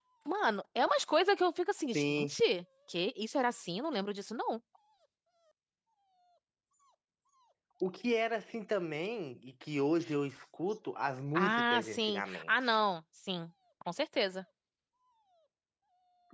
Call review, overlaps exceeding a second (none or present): present